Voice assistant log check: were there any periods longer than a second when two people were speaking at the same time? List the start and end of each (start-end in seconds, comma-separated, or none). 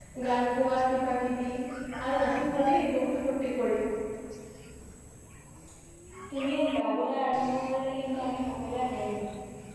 none